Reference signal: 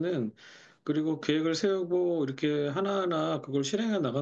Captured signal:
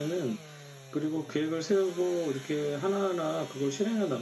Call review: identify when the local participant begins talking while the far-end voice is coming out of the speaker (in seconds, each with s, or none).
none